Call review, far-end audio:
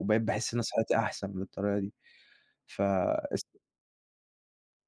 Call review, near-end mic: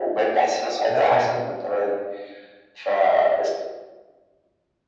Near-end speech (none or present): present